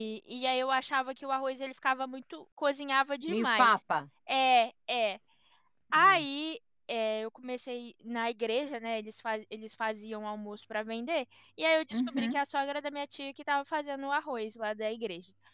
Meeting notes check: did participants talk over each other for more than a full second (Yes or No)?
No